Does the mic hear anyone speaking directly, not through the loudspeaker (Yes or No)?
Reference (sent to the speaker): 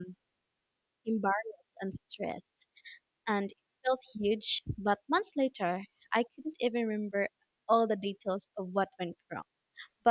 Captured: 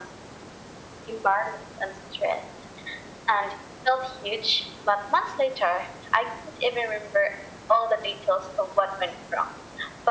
No